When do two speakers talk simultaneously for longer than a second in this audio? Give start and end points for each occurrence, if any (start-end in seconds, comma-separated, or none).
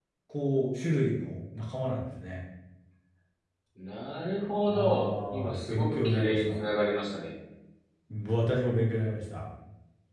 4.7-6.6